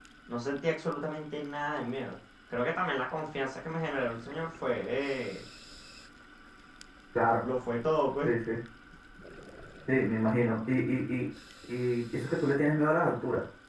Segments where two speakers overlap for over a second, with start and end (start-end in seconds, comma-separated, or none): none